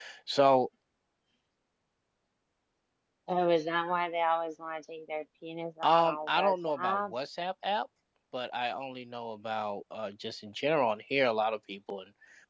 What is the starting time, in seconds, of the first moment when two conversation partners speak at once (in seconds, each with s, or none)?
5.8 s